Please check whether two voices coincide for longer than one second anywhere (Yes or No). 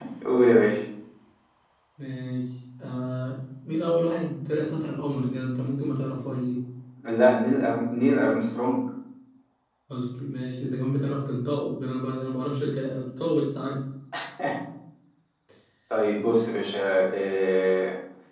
No